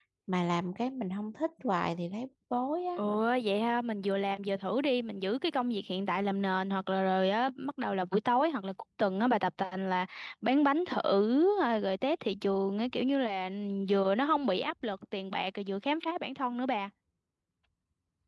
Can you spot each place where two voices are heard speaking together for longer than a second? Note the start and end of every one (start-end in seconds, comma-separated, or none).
none